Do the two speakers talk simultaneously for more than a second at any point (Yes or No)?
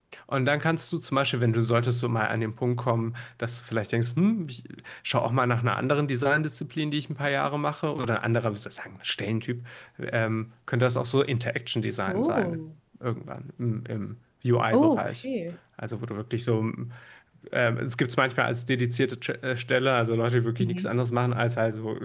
No